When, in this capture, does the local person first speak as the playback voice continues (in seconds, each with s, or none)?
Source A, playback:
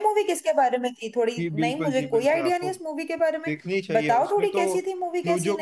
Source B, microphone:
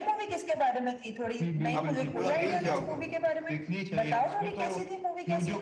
1.8 s